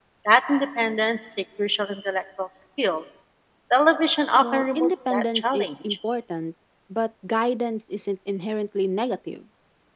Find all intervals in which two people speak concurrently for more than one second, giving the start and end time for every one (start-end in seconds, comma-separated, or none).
4.4-5.7